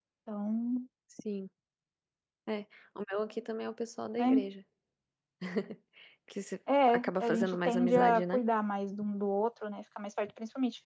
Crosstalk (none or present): present